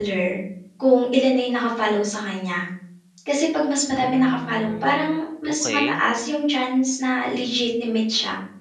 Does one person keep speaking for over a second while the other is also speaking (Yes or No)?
Yes